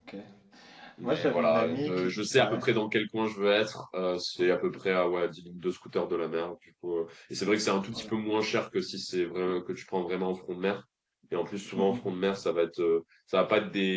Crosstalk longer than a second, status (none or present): present